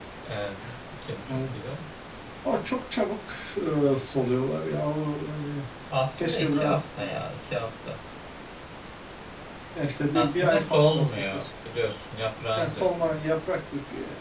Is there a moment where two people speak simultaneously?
Yes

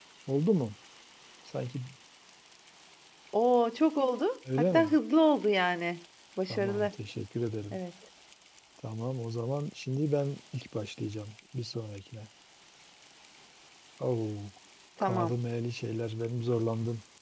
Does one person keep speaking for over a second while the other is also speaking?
No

